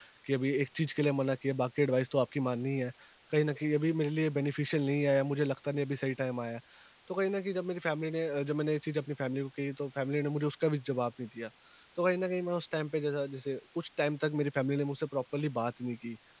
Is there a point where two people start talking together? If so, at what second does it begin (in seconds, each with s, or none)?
none